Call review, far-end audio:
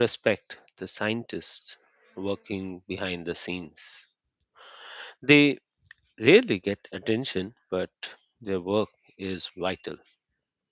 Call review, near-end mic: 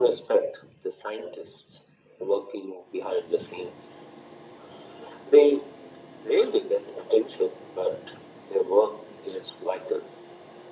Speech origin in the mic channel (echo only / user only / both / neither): echo only